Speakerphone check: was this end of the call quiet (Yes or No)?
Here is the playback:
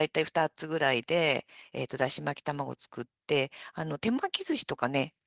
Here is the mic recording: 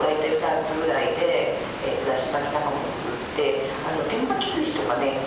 Yes